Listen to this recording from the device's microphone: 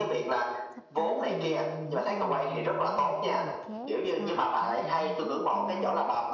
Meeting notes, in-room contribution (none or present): present